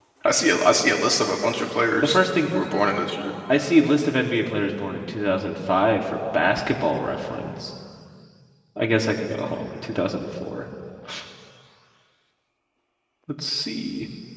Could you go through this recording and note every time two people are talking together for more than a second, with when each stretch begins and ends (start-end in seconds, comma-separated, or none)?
none